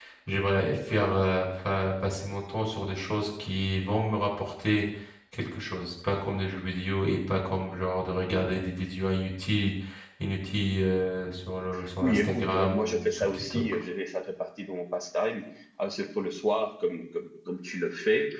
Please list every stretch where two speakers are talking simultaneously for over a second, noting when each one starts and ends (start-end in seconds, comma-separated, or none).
12.0-13.6